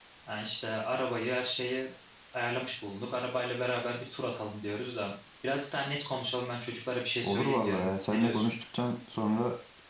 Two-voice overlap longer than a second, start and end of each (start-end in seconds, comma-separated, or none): 7.2-8.5